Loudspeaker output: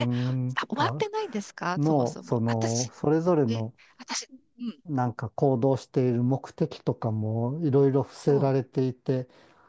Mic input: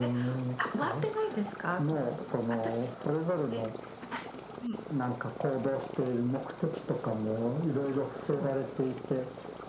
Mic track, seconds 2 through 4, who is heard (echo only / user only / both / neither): echo only